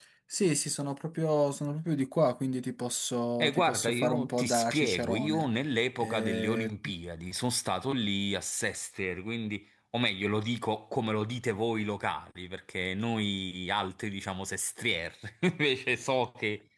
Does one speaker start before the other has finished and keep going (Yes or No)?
Yes